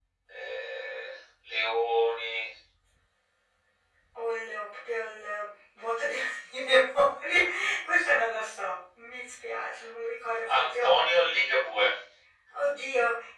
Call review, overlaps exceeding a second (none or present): none